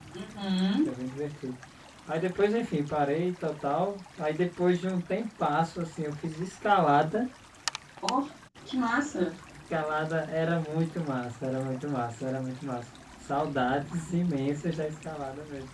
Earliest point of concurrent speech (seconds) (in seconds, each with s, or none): none